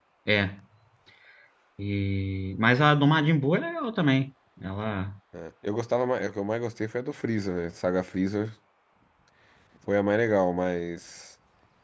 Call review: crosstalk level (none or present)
none